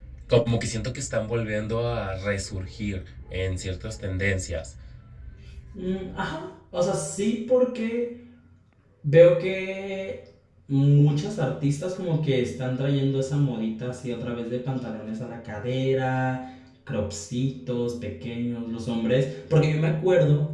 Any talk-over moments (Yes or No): No